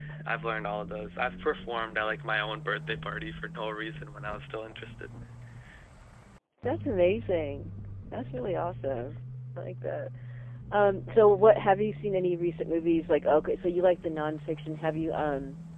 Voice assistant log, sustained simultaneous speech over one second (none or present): none